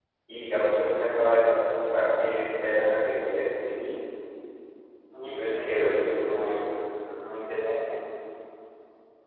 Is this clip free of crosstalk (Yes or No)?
No